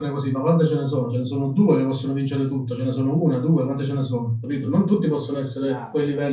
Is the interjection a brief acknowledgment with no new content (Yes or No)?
Yes